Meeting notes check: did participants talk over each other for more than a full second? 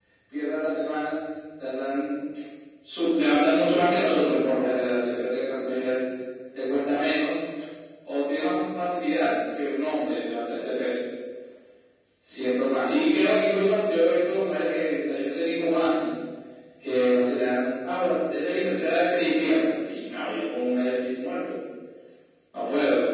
No

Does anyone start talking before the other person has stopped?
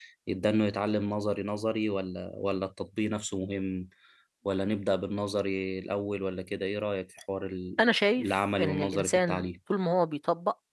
Yes, from 8.2 s

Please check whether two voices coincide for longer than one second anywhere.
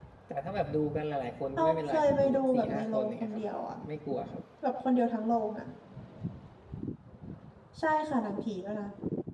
Yes, from 1.6 s

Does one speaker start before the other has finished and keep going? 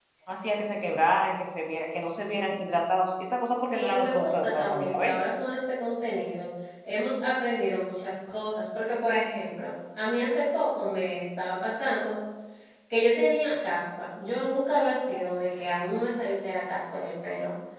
Yes, from 3.7 s

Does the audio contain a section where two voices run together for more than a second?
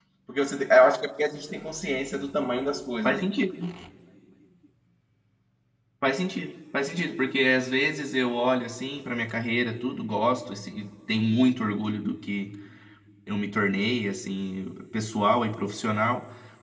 No

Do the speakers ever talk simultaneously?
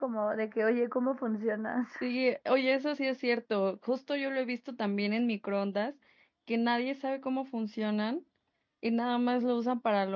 No

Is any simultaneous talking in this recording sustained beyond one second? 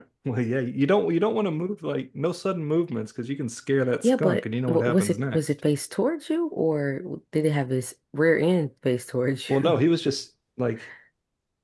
Yes, from 4.0 s

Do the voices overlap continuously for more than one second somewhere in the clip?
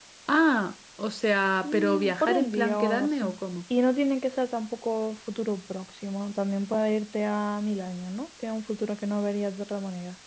Yes, from 1.6 s

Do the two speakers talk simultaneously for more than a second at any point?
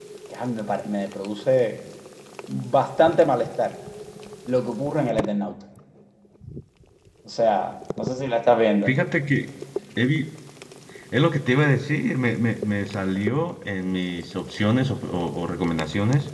No

